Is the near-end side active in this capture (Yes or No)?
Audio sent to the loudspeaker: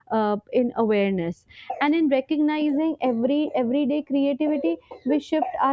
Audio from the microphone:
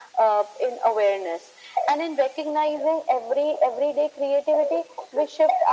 No